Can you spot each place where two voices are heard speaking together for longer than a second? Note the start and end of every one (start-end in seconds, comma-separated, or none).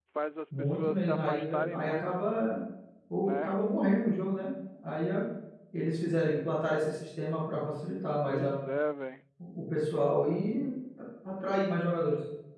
0.6-2.0